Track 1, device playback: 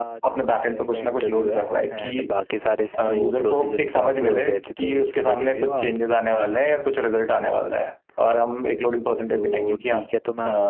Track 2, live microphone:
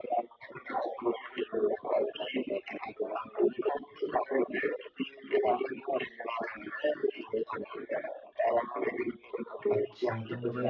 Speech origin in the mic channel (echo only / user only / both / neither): both